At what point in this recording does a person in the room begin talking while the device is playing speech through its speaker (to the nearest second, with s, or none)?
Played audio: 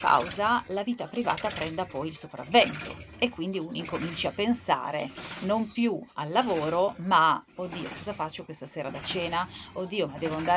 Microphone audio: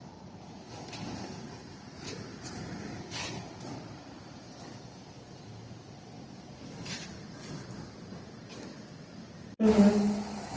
10 s